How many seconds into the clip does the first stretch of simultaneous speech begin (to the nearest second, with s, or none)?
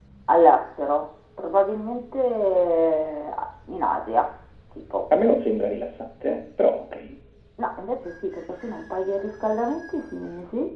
none